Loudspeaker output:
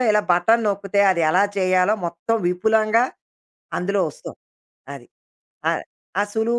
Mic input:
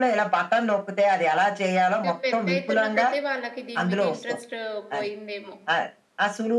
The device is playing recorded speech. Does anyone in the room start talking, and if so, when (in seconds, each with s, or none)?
2.0 s